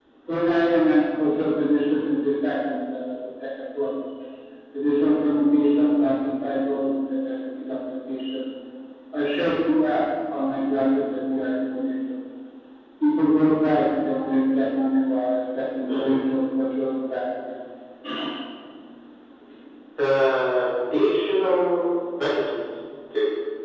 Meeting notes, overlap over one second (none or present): none